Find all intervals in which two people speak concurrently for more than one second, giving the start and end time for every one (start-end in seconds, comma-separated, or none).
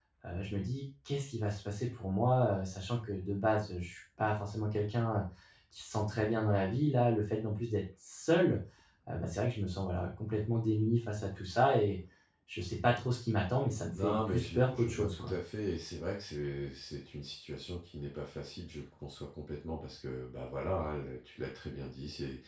14.0-15.3